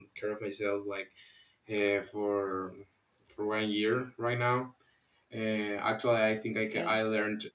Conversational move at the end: listening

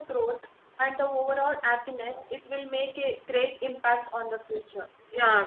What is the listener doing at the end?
taking over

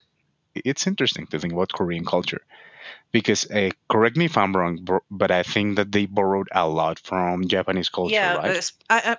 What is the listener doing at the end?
taking over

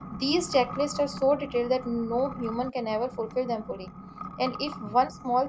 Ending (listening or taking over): listening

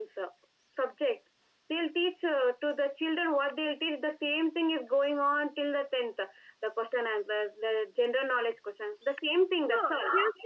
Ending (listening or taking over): taking over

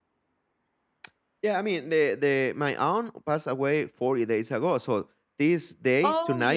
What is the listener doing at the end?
listening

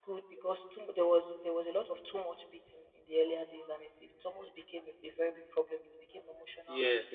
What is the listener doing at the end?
taking over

